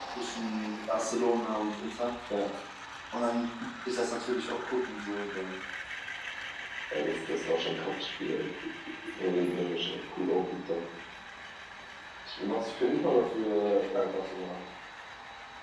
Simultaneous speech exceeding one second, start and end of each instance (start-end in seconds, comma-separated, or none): none